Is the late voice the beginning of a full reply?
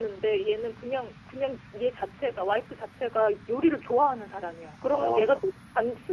No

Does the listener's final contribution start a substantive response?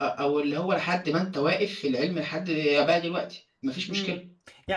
Yes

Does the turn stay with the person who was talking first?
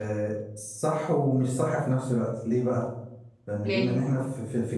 Yes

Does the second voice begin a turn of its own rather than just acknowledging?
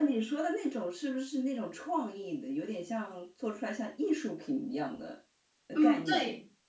Yes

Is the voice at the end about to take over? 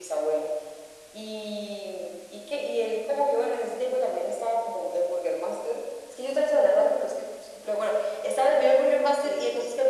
No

